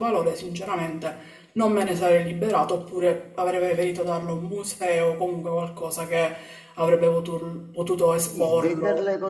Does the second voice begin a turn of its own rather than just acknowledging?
Yes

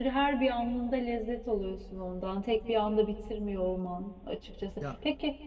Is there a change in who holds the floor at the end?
No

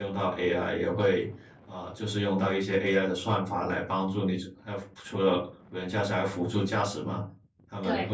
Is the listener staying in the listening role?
Yes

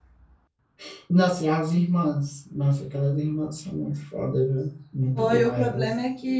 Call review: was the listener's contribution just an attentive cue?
No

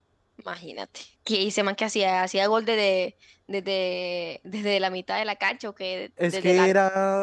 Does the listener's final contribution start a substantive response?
Yes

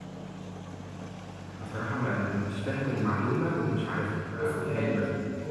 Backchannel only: No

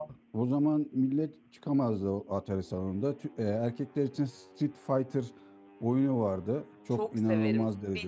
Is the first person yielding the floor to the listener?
Yes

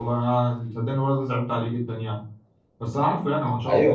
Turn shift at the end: No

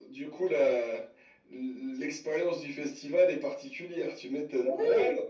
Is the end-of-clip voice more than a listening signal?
Yes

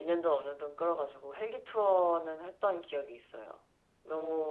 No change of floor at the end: No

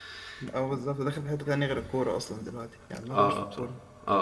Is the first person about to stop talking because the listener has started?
Yes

